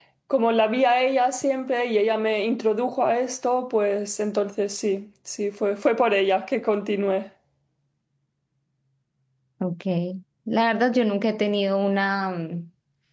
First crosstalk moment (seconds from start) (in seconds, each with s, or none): none